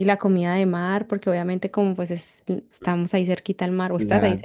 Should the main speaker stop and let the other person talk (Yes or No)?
Yes